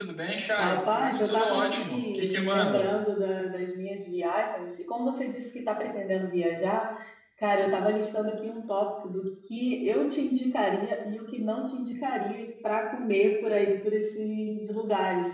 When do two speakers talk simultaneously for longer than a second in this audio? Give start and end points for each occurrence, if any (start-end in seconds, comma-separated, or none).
0.6-2.9